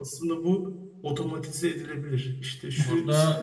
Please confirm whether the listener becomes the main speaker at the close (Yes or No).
No